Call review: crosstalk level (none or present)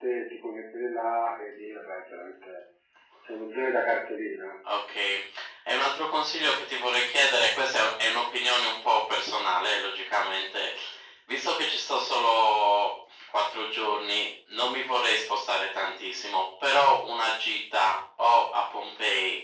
none